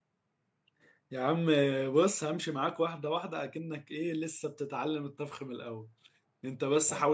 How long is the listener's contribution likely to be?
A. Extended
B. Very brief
B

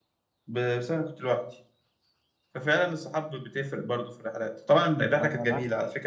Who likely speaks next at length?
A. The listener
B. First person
B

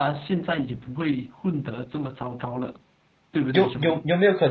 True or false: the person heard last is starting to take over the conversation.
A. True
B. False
A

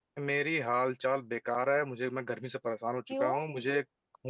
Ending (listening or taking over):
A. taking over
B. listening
B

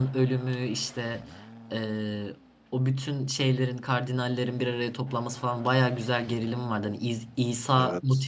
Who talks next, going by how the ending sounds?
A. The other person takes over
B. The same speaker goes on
B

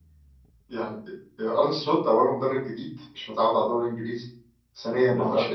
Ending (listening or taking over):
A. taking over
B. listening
B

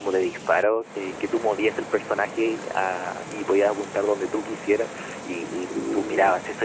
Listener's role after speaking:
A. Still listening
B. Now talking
A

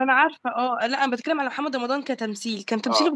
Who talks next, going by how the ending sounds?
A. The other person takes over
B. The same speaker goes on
B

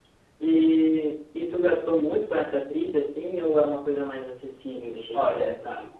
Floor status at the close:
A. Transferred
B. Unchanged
A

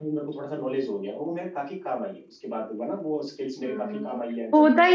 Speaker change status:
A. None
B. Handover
B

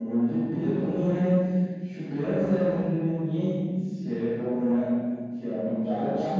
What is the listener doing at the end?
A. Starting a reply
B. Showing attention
A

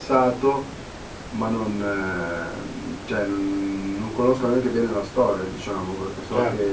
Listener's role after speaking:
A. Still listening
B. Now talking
B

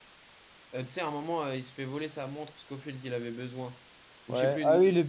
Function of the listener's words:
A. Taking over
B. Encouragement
A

